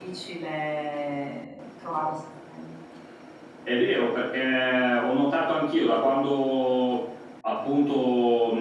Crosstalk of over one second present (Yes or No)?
No